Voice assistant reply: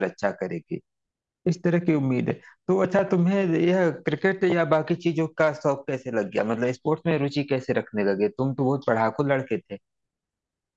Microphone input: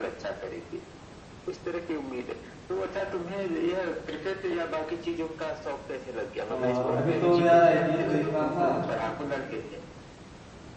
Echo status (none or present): present